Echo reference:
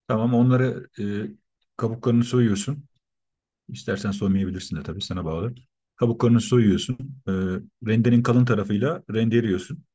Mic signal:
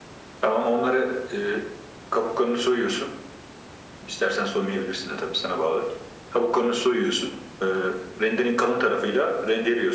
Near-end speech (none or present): none